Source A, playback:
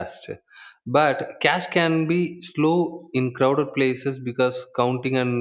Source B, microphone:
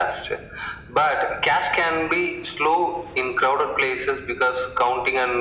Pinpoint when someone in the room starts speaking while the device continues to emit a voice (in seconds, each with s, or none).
none